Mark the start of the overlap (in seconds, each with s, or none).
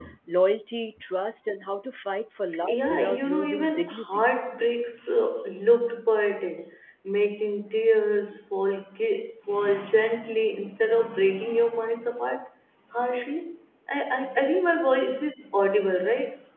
2.7 s